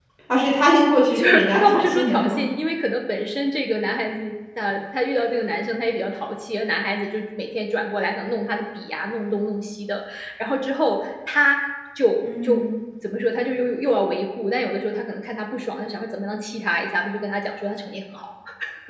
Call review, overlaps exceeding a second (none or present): present